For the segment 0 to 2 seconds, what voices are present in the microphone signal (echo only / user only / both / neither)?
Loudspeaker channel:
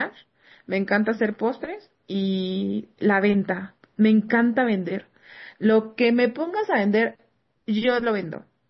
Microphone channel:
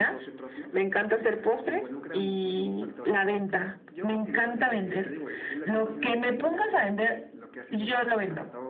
both